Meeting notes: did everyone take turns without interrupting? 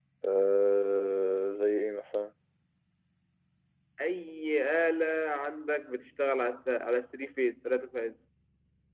Yes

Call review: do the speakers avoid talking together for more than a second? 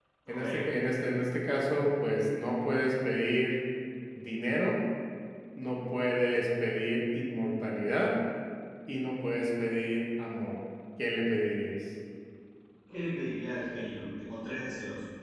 Yes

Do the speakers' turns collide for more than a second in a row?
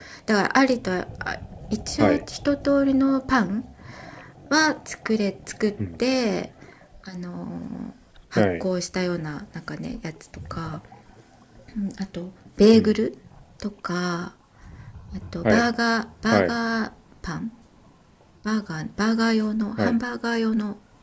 No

